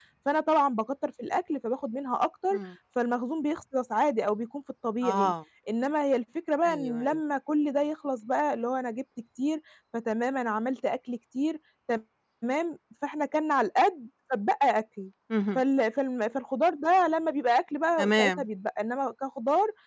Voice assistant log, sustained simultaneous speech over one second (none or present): none